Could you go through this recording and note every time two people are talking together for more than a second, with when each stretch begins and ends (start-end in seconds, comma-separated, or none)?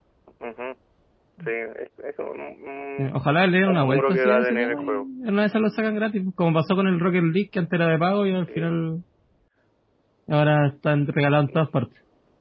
3.6-5.0